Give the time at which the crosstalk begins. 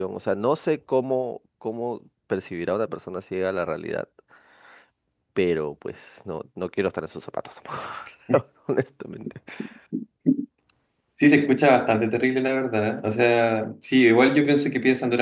none

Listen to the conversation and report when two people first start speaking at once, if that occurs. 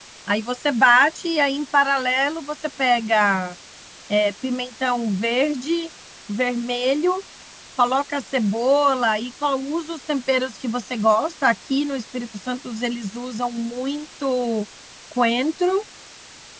none

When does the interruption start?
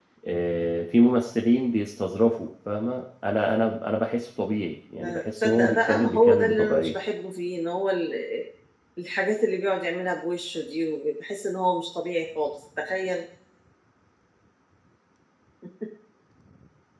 5.0 s

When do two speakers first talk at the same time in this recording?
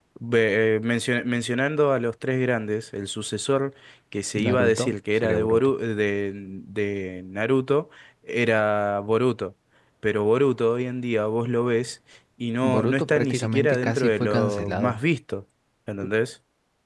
4.4 s

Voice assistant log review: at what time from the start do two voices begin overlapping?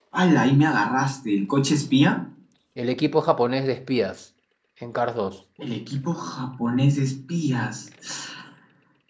none

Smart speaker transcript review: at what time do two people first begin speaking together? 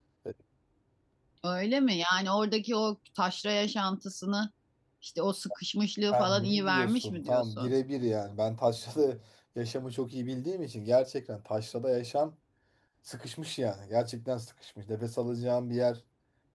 6.1 s

